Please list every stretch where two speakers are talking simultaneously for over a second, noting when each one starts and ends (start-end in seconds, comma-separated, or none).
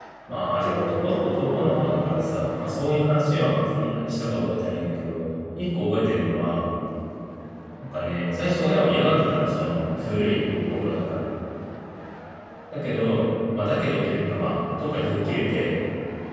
0.6-2.5